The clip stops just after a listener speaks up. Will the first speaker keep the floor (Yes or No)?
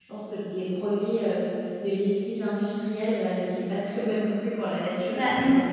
No